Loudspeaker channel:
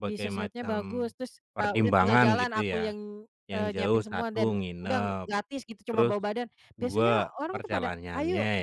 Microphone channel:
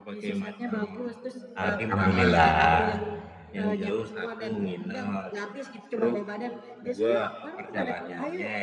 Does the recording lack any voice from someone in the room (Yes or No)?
No